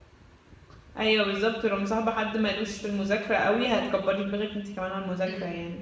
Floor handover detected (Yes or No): Yes